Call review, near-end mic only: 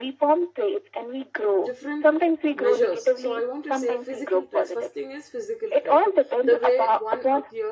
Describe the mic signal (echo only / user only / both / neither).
both